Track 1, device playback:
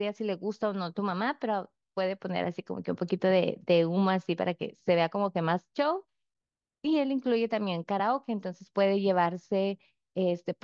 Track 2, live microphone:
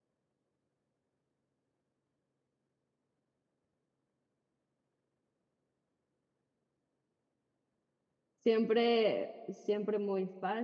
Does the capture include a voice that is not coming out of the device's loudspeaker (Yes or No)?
Yes